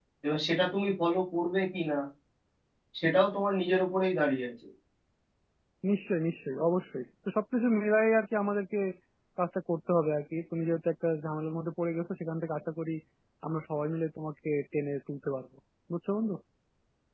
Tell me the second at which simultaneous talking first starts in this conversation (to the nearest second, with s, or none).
none